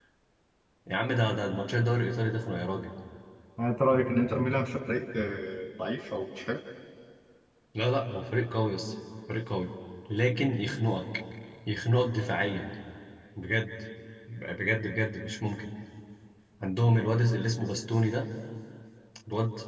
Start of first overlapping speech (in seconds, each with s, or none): none